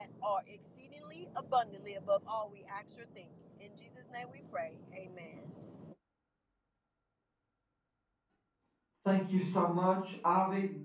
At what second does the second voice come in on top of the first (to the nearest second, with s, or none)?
none